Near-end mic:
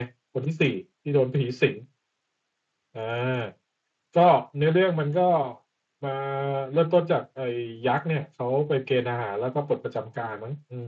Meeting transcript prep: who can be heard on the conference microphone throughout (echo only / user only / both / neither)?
echo only